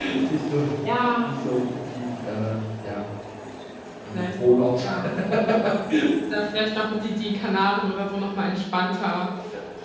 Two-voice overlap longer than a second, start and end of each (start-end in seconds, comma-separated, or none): none